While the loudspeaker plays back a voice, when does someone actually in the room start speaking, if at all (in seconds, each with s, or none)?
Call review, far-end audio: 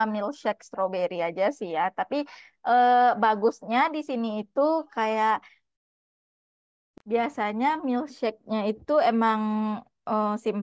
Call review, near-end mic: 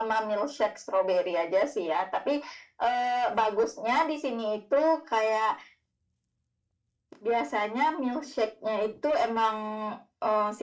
none